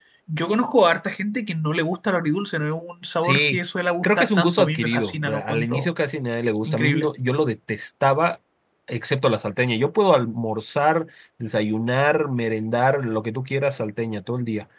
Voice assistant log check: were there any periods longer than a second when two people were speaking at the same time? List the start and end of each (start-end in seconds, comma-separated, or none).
4.0-5.9